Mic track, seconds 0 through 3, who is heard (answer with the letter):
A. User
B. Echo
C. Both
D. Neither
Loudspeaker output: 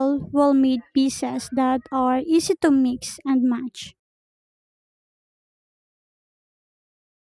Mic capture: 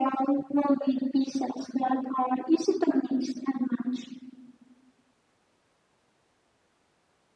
B